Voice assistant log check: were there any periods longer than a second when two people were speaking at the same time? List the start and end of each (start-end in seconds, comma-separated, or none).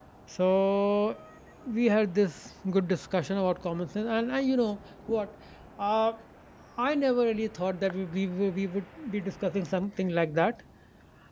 none